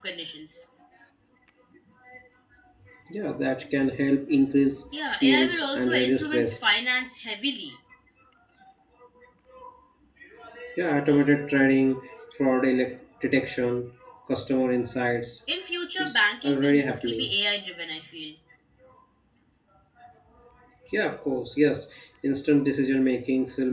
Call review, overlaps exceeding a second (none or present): present